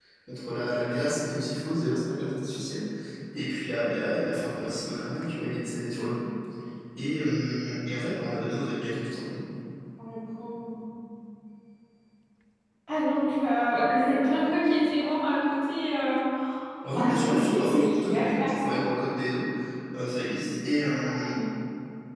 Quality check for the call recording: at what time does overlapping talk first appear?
16.9 s

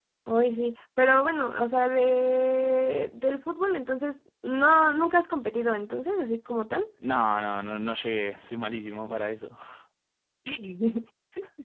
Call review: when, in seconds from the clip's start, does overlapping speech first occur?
none

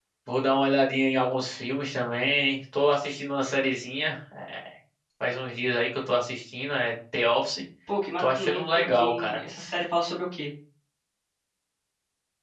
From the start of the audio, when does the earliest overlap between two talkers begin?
8.2 s

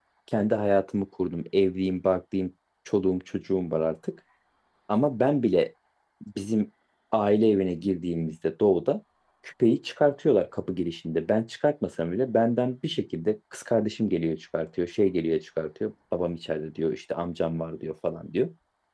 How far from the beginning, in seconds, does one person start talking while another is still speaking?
none

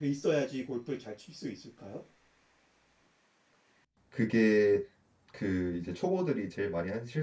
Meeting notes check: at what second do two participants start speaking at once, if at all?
none

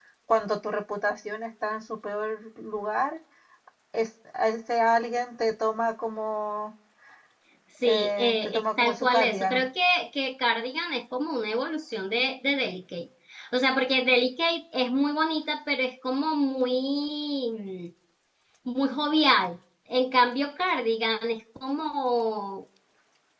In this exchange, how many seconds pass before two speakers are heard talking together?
7.8 s

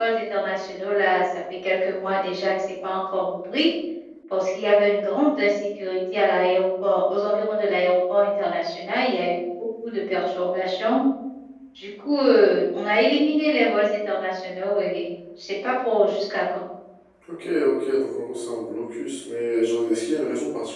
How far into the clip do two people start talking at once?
none

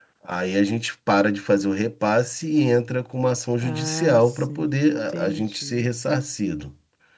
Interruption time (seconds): 3.6 s

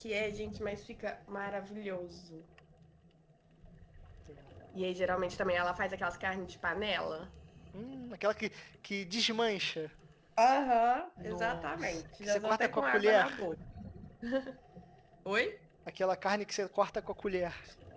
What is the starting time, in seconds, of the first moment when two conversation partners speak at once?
11.2 s

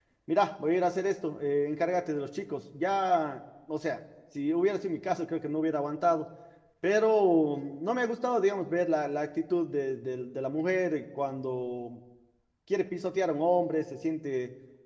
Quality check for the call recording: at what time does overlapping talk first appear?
none

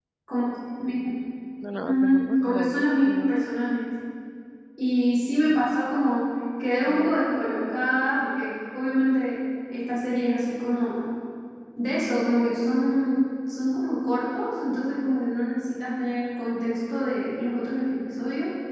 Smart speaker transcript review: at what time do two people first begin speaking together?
1.9 s

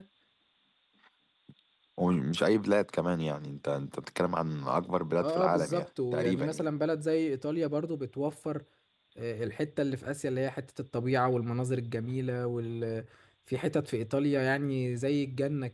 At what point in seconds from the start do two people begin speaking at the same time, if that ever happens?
5.2 s

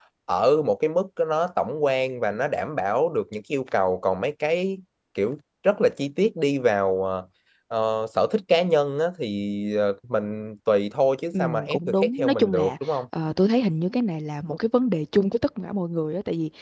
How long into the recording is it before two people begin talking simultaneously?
11.3 s

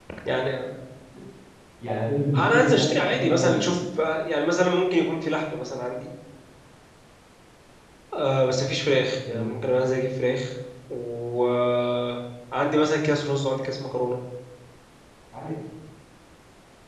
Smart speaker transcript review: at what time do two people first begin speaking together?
2.4 s

